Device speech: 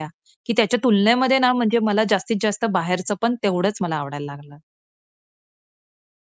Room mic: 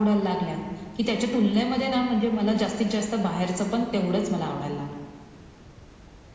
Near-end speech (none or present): none